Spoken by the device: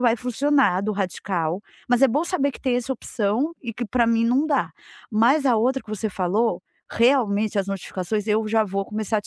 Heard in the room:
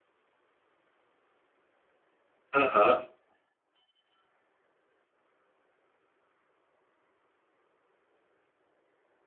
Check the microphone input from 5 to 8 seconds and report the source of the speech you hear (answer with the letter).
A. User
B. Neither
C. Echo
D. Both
B